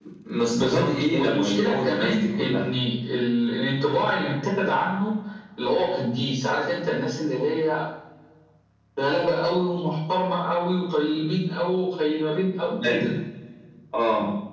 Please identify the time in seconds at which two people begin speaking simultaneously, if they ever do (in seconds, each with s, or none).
0.5 s